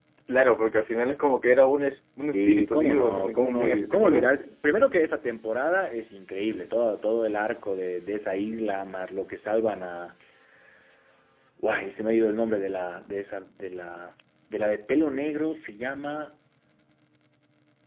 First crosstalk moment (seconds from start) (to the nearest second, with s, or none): 2 s